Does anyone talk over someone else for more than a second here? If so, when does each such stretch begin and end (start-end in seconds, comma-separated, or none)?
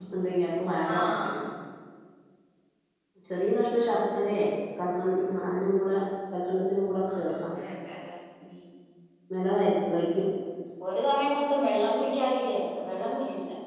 none